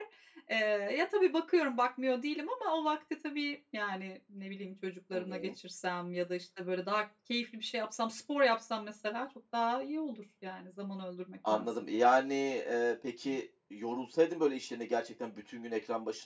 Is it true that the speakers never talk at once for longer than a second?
Yes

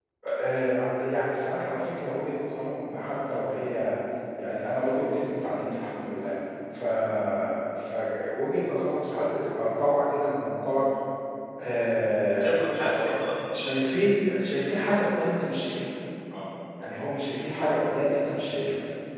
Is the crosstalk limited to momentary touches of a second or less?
Yes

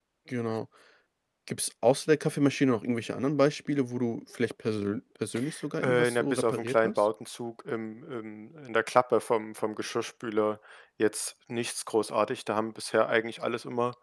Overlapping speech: Yes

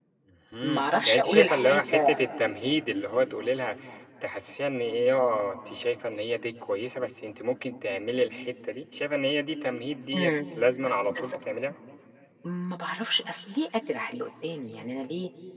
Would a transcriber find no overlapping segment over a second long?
No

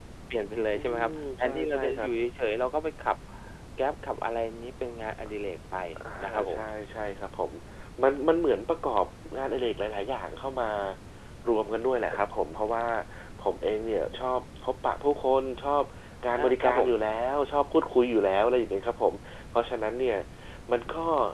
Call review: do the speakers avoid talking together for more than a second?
No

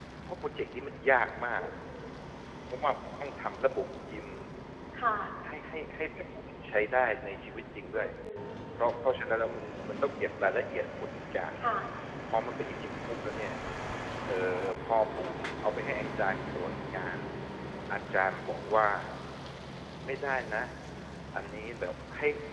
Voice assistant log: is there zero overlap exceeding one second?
Yes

